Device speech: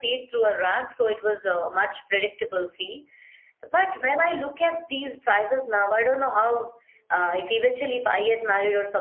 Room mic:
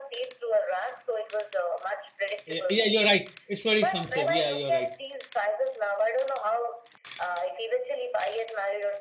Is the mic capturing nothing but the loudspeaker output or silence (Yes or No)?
No